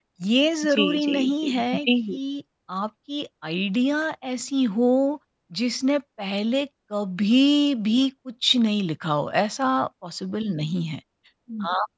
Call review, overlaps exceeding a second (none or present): present